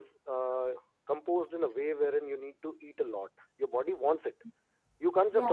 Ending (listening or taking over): listening